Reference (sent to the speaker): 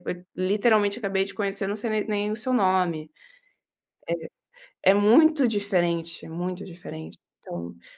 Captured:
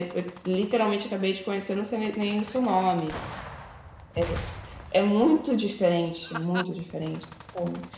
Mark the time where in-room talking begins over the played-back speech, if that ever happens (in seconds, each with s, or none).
none